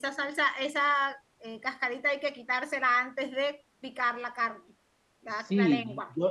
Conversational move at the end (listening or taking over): taking over